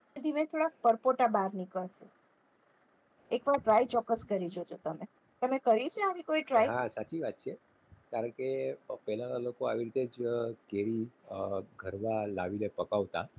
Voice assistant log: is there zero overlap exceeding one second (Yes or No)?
Yes